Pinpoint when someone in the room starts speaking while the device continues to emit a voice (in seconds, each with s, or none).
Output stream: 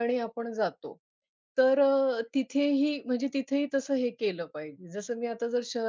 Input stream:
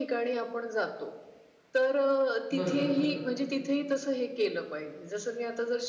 2.5 s